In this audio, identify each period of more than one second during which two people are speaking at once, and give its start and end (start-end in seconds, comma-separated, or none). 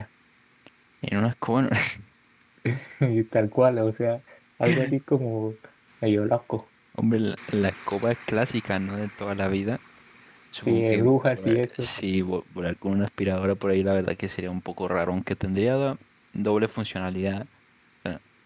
10.7-11.9